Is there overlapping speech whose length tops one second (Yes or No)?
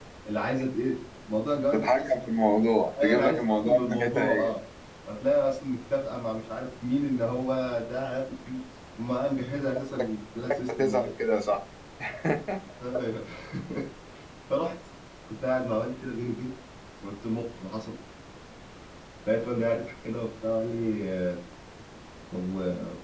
Yes